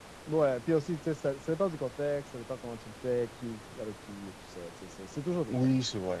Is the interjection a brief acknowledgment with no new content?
No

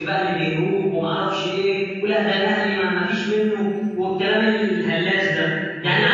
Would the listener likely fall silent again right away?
Yes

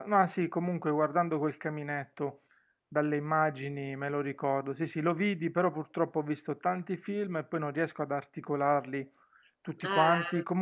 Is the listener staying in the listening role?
Yes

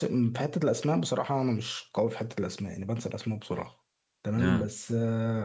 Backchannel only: Yes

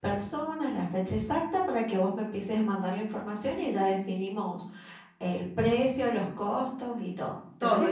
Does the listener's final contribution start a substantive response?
Yes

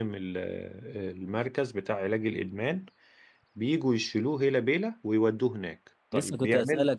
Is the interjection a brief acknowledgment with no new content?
No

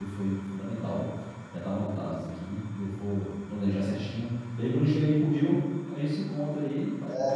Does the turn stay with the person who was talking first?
No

